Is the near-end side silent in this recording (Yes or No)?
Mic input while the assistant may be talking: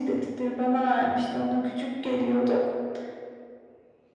Yes